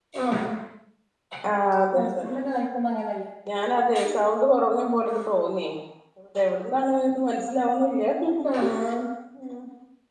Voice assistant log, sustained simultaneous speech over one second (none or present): none